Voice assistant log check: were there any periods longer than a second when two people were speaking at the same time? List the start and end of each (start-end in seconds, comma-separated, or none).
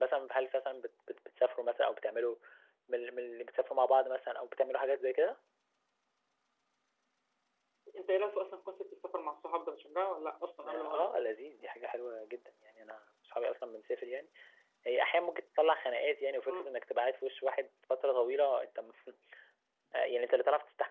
none